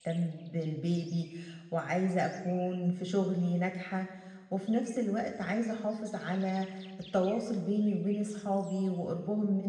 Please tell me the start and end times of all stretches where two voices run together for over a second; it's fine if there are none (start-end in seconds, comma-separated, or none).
none